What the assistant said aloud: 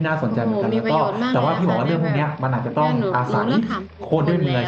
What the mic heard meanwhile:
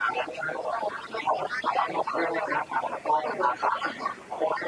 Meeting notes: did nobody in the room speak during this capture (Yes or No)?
Yes